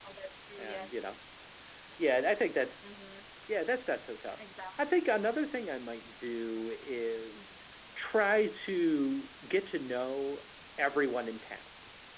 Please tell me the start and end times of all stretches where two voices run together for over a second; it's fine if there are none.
none

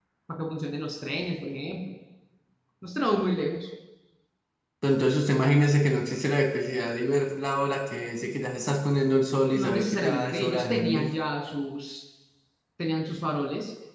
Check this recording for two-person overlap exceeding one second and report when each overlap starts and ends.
9.5-11.1

